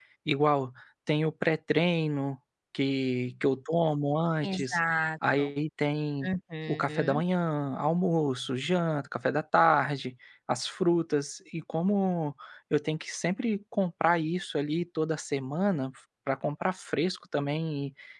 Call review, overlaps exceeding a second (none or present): none